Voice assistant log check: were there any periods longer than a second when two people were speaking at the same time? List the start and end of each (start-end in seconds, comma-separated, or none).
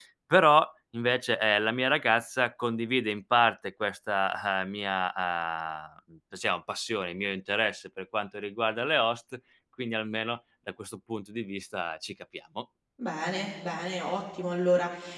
none